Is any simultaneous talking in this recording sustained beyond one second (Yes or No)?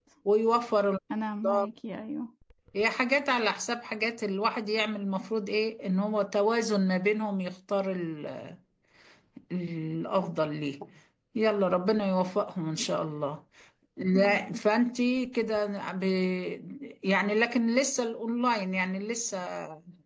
No